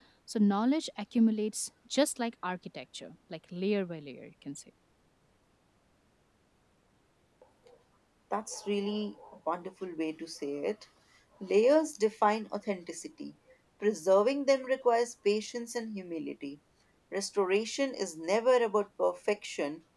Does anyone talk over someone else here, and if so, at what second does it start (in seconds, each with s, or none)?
none